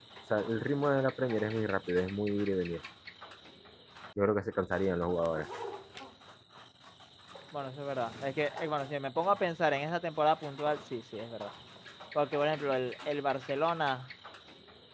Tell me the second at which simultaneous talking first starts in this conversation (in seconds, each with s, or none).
none